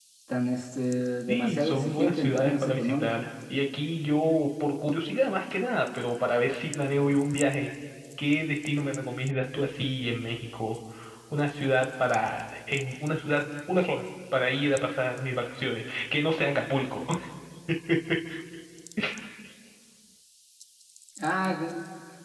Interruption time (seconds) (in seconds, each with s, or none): 1.3 s